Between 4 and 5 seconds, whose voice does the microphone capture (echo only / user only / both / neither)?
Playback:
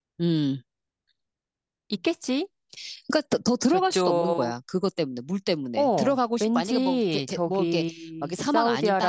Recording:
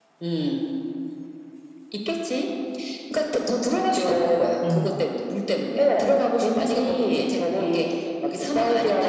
both